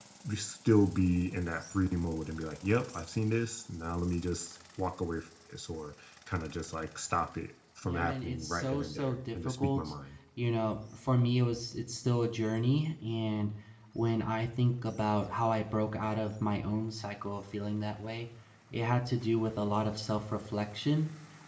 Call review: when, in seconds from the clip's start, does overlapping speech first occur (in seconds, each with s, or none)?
7.8 s